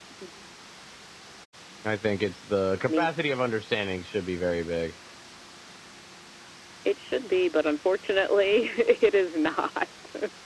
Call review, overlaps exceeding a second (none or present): none